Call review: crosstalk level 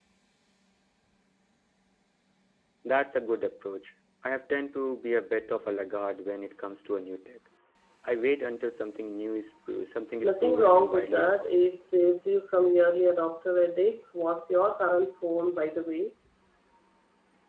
present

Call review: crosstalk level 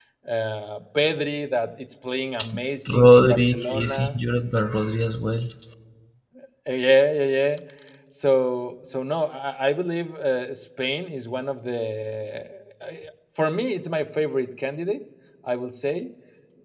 present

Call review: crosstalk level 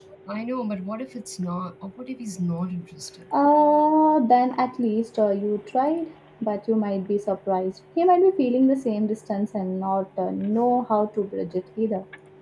none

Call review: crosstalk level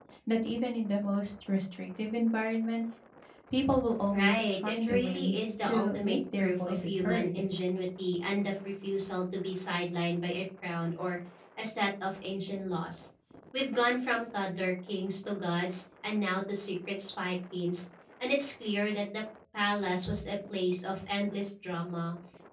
present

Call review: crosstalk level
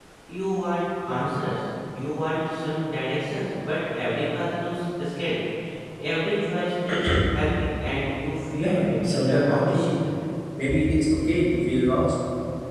present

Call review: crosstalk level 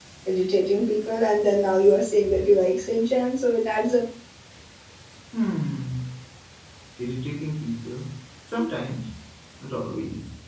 none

